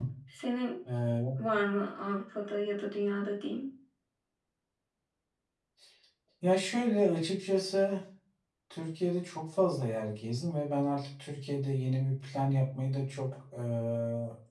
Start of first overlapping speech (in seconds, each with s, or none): none